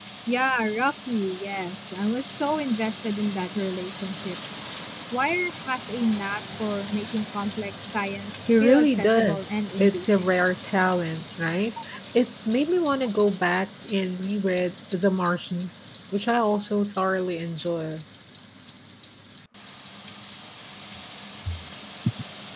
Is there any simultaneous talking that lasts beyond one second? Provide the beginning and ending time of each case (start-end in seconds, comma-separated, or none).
8.6-10.3